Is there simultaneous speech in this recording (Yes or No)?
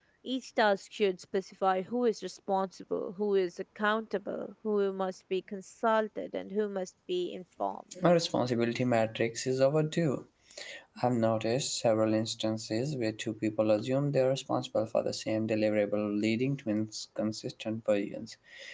No